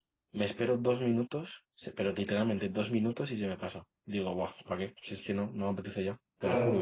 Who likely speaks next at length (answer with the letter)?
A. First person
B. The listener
B